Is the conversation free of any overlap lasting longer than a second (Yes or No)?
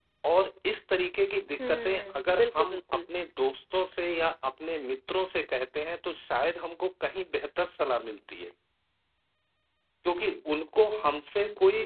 No